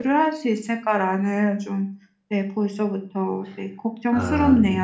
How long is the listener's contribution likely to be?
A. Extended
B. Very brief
A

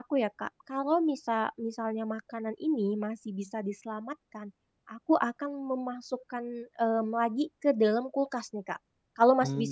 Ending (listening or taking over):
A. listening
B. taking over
A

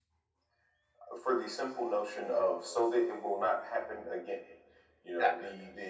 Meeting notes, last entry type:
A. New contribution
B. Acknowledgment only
B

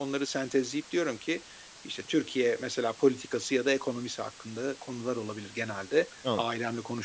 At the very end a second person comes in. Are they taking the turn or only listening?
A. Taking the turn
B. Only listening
B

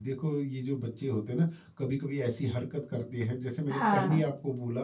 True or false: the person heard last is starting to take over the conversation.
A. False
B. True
A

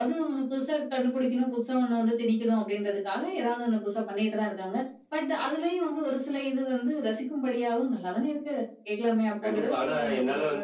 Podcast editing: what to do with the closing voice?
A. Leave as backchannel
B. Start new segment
B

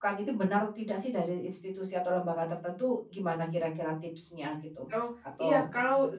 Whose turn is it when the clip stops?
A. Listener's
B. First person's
A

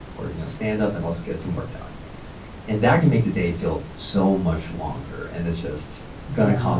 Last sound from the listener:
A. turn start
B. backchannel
B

